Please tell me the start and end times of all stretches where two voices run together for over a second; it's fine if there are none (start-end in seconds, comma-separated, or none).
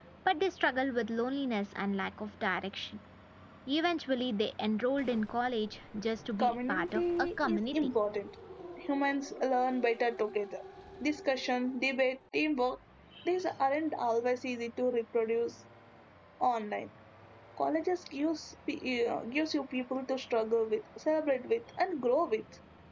6.4-7.9